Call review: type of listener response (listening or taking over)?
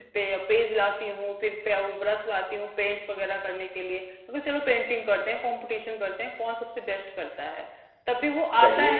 listening